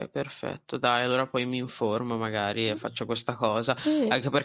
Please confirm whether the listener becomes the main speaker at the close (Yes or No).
No